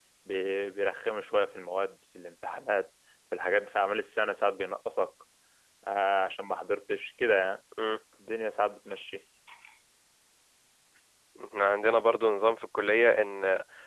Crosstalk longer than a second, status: none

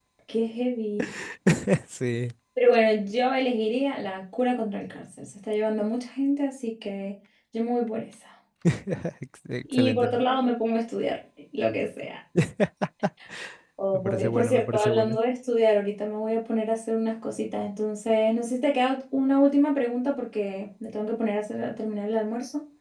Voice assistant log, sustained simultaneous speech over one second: present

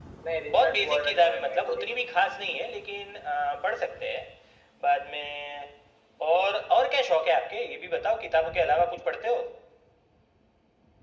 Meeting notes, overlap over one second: present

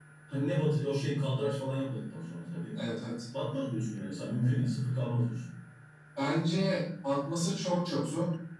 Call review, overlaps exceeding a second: none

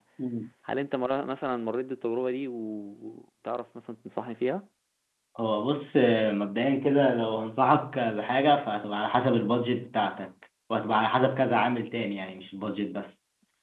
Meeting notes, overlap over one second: none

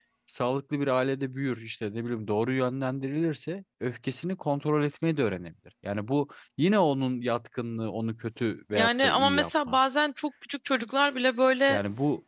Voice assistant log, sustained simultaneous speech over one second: present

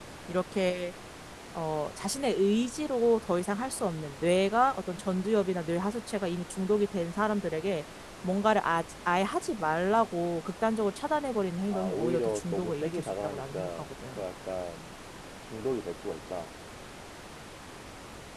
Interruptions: present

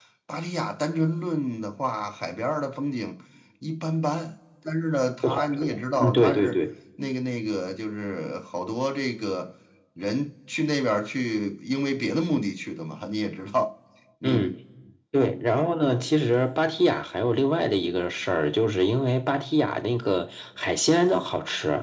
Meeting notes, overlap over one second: present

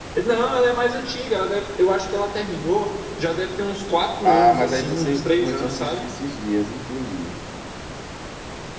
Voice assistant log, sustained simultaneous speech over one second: present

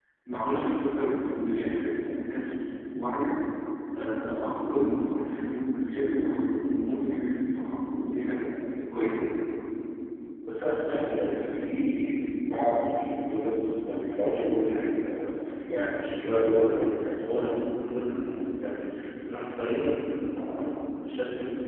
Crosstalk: none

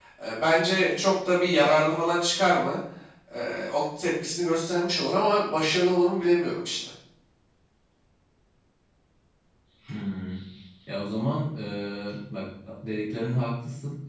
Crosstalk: none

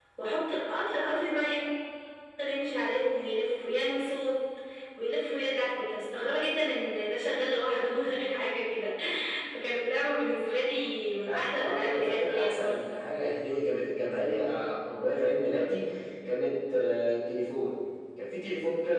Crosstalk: present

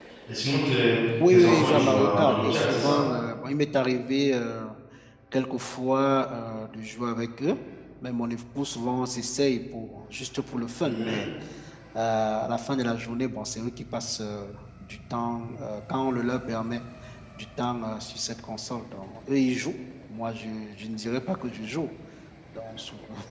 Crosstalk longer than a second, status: present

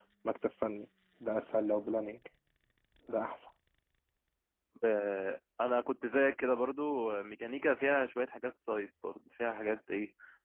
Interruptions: none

